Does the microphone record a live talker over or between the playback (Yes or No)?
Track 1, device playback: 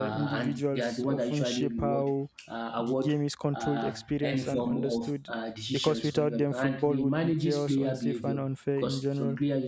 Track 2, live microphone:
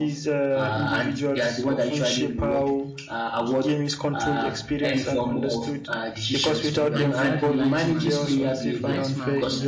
Yes